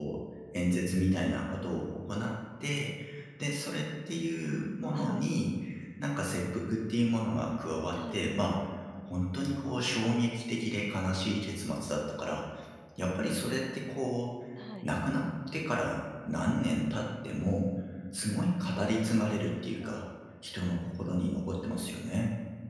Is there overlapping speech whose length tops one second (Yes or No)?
No